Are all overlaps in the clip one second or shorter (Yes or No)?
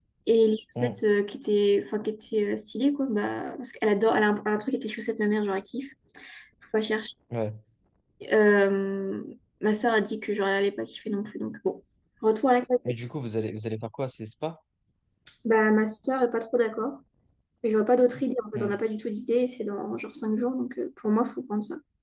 Yes